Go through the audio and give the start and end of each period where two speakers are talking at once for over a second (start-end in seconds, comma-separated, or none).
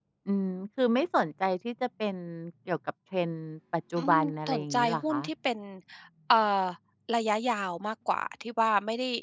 4.0-5.2